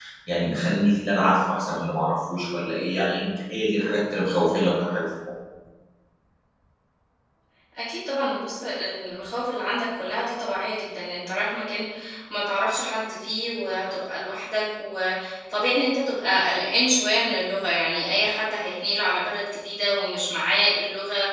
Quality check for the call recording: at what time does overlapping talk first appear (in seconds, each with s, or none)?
none